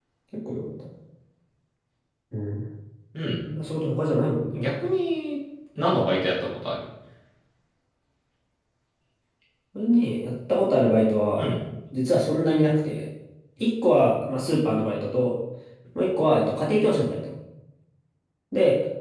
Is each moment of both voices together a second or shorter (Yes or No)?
Yes